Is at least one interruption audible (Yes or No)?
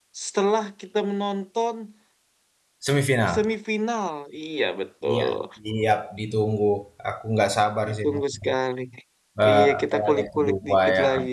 Yes